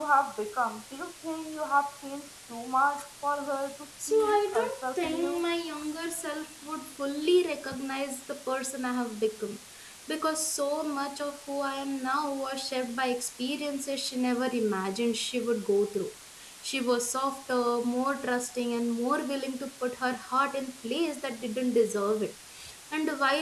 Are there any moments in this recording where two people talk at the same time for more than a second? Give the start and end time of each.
4.1-5.4

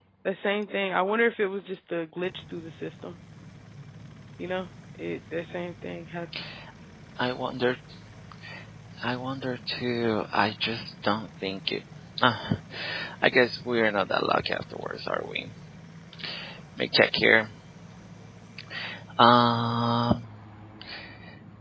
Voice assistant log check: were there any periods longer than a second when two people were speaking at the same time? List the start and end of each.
none

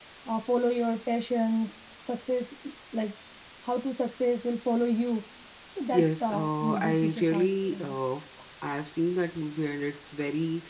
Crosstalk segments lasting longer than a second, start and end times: 5.9-7.9

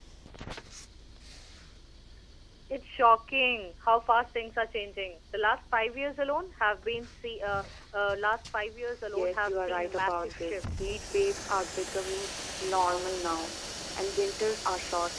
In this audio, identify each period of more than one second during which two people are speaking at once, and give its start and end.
9.1-10.9

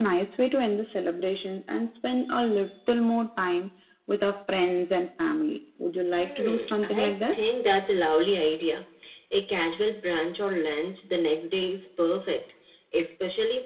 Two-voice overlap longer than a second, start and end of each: 6.2-7.4

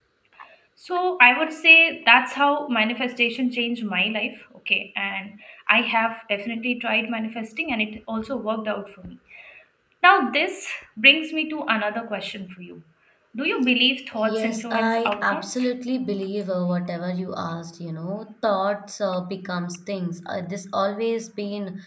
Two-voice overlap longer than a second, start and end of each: 14.2-15.5

